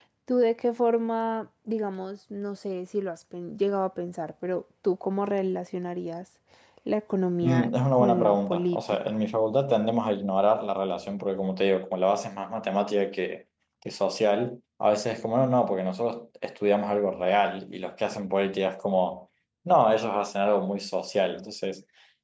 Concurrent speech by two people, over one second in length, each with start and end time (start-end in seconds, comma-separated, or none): 7.4-9.2